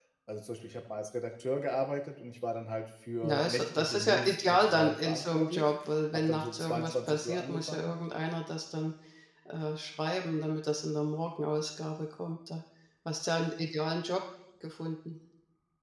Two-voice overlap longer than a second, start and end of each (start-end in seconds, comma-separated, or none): 3.2-5.7, 6.1-7.9